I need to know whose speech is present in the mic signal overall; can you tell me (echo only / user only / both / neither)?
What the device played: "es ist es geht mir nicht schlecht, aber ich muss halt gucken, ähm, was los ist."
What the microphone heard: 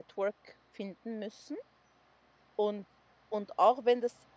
user only